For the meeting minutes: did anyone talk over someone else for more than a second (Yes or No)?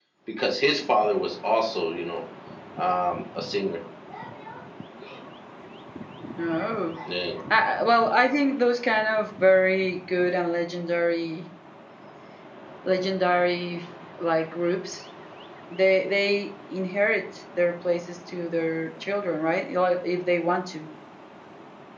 No